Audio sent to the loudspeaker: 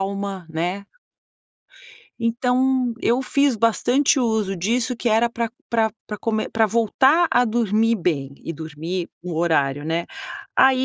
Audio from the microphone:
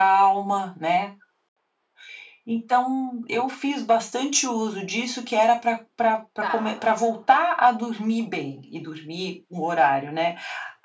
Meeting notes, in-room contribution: present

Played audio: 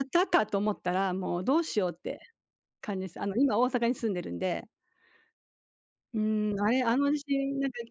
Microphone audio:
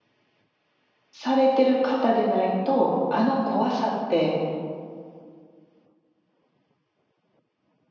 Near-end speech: present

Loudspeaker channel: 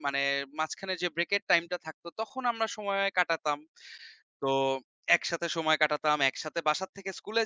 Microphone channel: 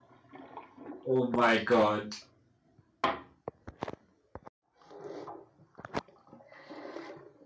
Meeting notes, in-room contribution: present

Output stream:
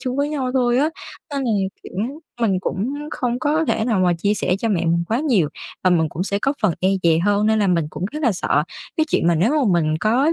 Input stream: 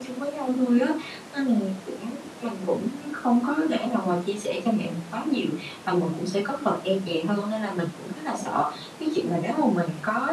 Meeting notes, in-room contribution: none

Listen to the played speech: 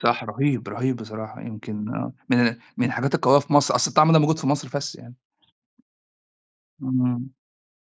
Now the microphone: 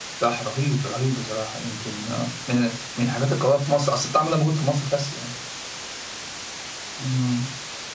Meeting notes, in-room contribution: none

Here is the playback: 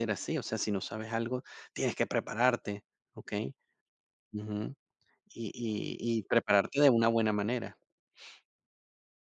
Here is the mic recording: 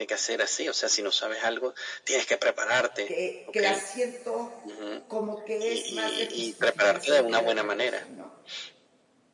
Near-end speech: present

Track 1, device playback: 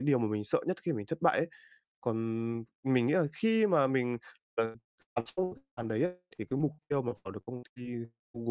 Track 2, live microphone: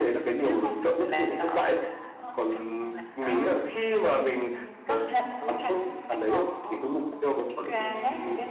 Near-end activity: present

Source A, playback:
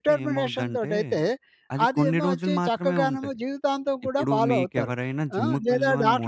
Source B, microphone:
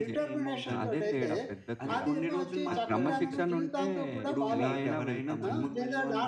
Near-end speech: present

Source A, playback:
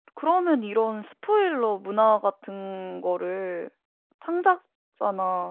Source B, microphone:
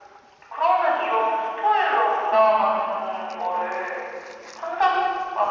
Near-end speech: none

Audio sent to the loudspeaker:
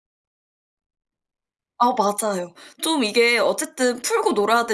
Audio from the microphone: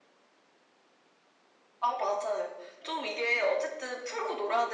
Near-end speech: none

